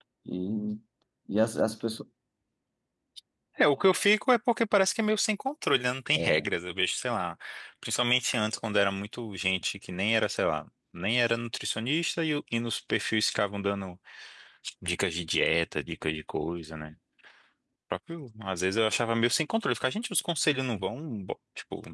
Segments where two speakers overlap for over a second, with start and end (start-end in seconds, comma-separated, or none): none